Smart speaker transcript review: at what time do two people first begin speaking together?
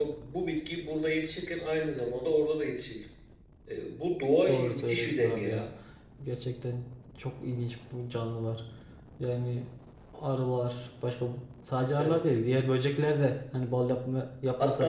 4.5 s

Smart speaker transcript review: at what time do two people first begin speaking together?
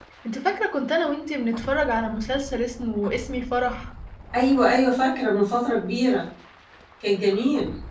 none

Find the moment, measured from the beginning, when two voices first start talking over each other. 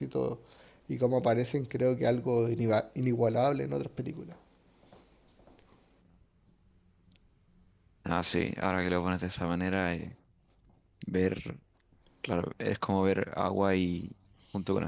none

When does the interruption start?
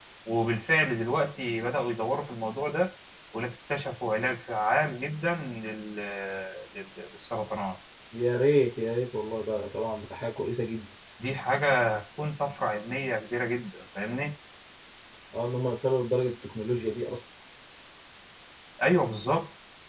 none

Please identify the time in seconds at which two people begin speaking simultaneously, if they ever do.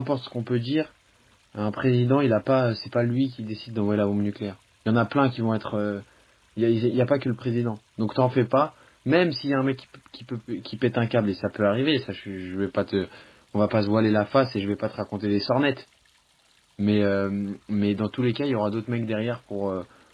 none

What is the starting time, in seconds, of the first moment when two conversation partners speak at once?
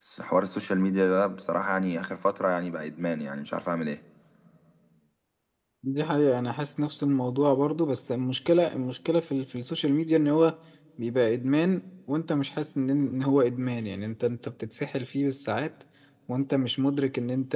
none

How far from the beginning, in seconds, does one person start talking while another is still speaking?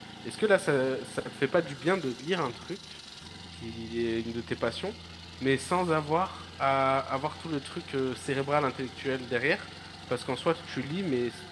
none

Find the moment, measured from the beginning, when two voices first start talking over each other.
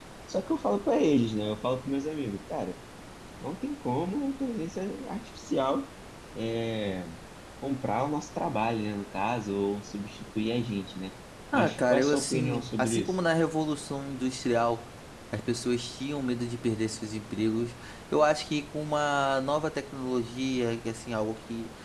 11.5 s

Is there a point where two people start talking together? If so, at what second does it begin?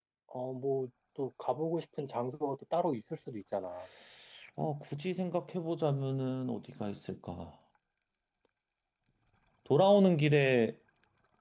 none

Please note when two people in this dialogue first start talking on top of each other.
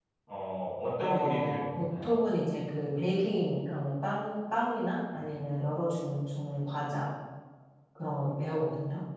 1.0 s

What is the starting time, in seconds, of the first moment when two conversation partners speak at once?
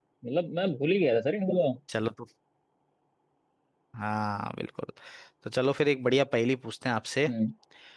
none

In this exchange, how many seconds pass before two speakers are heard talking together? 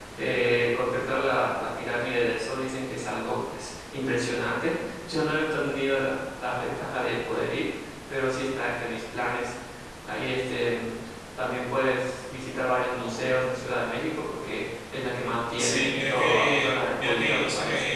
15.5 s

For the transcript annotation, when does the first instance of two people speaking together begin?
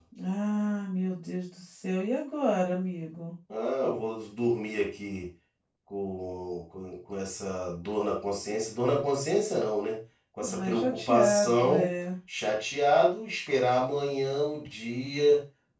10.4 s

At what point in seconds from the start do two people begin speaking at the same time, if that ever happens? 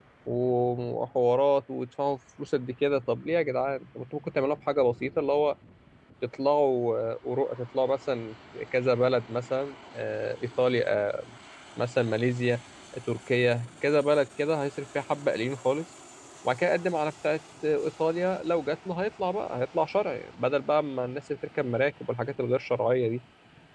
none

